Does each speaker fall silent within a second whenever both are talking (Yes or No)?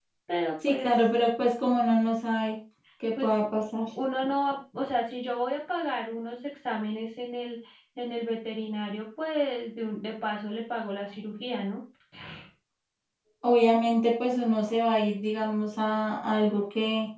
Yes